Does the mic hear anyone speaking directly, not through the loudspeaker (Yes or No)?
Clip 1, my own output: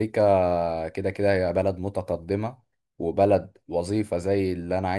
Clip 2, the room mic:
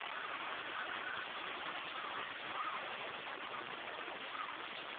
No